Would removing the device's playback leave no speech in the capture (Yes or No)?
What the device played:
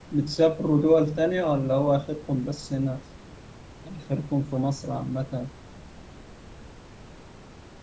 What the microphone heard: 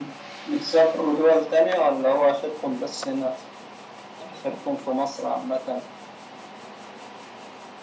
Yes